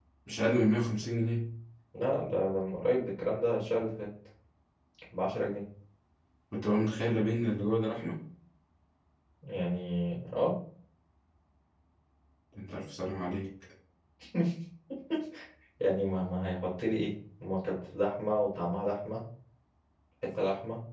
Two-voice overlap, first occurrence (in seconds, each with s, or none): none